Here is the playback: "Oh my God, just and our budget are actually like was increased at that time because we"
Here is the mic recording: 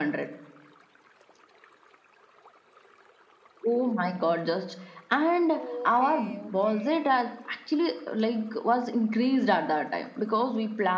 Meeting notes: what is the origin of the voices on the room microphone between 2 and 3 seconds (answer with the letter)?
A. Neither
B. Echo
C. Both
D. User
A